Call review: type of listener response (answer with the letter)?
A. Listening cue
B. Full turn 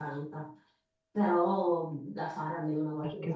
A